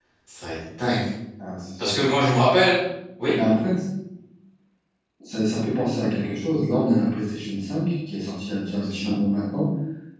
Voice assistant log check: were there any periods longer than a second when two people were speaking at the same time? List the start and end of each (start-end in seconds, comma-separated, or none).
none